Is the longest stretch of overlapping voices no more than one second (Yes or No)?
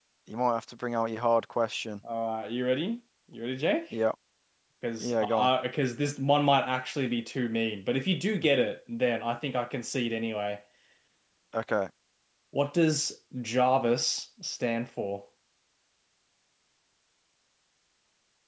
Yes